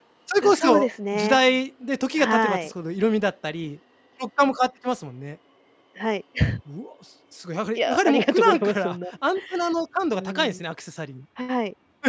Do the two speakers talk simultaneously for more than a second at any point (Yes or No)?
Yes